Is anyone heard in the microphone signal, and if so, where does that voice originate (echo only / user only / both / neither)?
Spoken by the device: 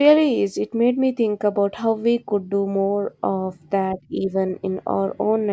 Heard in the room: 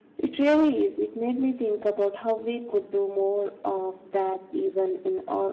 echo only